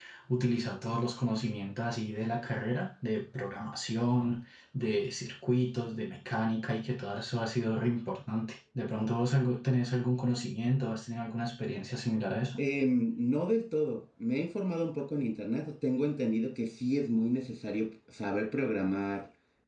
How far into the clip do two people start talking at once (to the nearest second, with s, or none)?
none